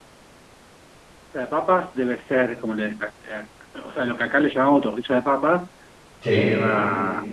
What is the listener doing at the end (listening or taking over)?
listening